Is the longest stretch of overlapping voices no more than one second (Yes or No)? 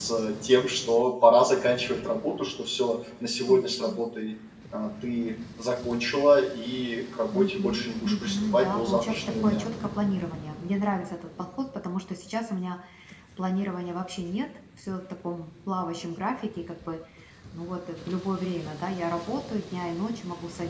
No